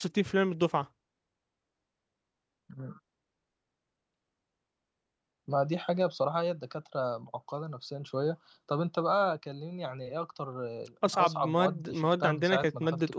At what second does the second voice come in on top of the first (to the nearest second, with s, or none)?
11 s